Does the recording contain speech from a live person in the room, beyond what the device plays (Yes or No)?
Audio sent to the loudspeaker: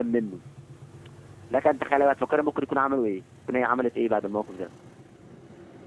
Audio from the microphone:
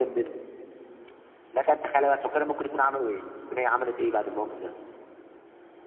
No